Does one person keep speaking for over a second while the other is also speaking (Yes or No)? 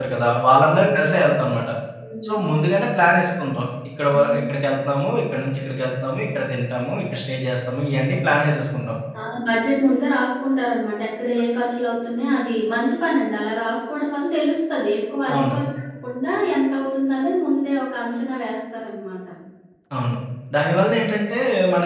No